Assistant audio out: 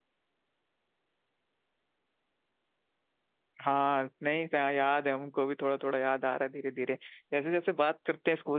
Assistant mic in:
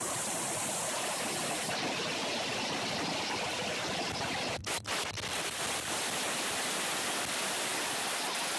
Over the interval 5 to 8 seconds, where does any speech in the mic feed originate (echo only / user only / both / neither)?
neither